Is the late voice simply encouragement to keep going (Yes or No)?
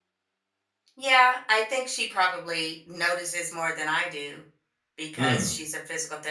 Yes